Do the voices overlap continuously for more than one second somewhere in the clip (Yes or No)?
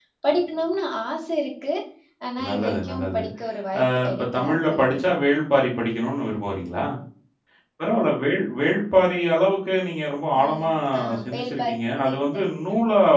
Yes